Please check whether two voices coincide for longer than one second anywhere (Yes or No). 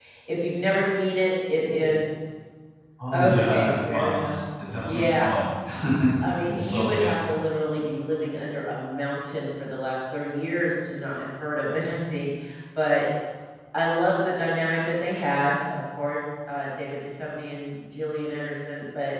Yes